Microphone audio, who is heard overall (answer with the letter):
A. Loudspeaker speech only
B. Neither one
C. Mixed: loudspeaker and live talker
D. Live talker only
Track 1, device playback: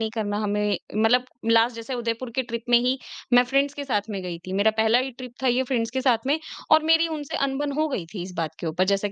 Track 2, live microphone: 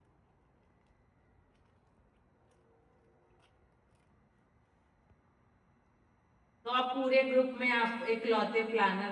D